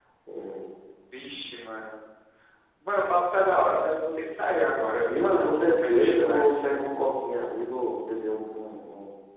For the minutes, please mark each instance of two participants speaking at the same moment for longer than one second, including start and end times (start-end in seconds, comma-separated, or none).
5.1-6.7